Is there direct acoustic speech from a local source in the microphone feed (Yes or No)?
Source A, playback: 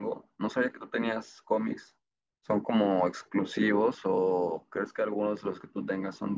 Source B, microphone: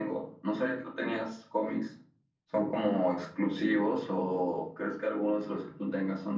No